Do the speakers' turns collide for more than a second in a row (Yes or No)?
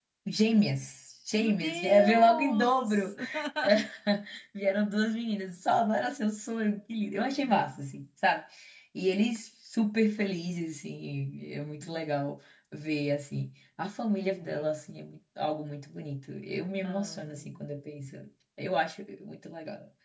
Yes